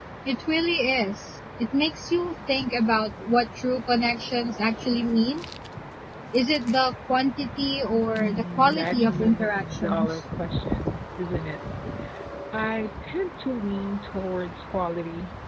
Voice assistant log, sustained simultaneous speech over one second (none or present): present